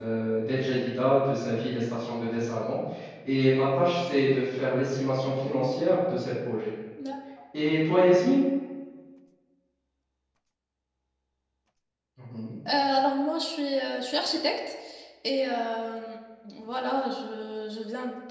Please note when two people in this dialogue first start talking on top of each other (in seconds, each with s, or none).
none